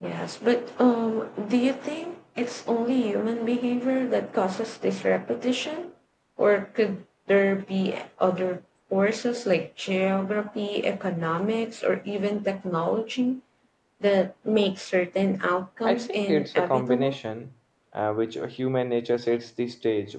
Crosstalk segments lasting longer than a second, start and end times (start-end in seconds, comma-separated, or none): 15.8-17.2